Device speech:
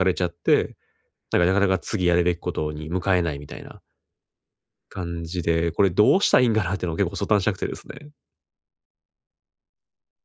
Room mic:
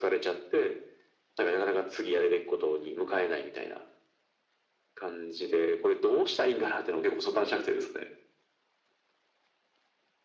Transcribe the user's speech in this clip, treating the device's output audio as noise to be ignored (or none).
none